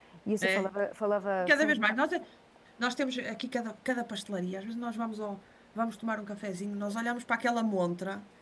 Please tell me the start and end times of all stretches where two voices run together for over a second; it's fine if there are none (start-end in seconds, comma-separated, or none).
none